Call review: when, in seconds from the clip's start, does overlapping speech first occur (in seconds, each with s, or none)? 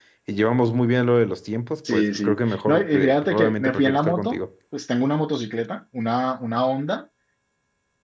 1.8 s